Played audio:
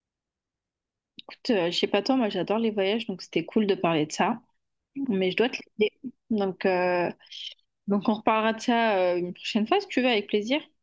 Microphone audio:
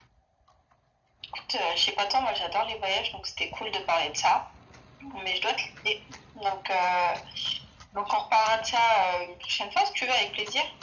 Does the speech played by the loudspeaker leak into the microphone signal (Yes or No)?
Yes